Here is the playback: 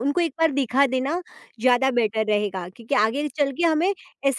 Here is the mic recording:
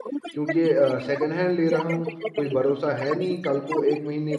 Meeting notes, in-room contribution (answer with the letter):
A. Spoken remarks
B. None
A